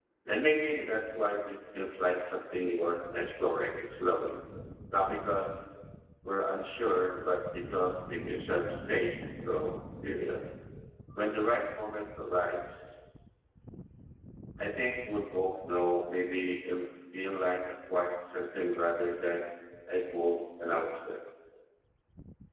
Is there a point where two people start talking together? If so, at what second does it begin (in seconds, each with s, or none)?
none